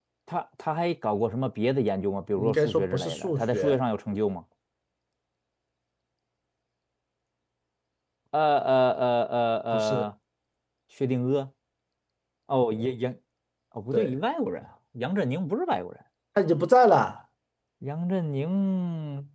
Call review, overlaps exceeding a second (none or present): present